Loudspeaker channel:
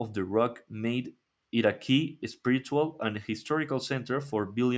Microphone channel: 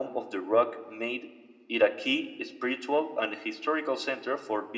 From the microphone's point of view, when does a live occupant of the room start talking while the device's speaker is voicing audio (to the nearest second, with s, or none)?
none